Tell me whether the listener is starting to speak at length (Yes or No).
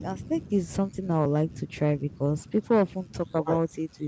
No